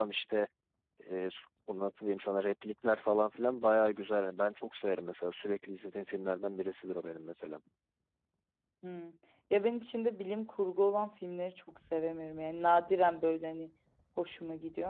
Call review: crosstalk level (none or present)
none